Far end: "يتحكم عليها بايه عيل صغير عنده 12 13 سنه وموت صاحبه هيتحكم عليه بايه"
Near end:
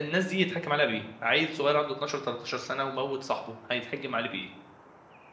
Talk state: echo only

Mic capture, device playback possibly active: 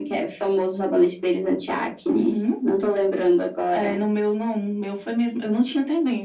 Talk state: echo only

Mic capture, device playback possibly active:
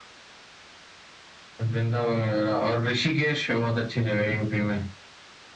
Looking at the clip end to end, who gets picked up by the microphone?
echo only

